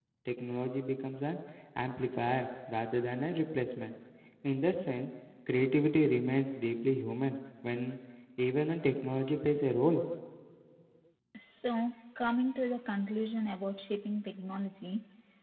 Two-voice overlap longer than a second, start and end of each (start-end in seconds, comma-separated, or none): none